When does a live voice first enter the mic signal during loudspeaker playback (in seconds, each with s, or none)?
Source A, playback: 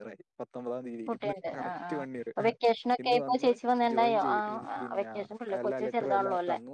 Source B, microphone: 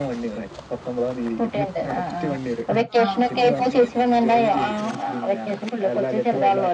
3.0 s